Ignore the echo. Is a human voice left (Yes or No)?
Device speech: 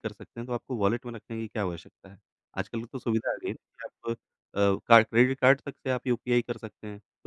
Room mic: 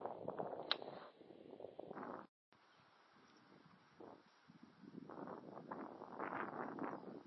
No